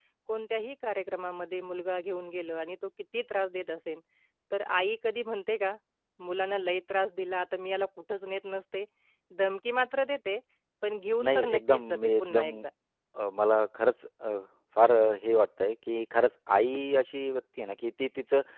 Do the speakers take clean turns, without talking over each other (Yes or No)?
No